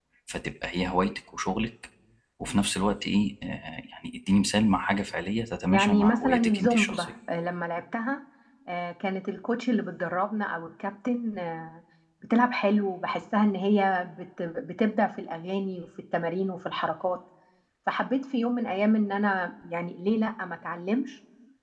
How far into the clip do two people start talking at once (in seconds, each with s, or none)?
5.7 s